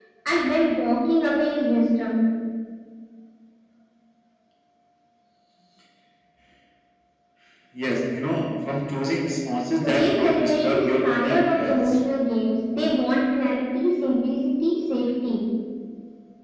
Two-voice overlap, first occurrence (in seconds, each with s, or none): 9.8 s